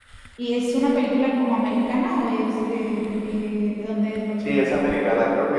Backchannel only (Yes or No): No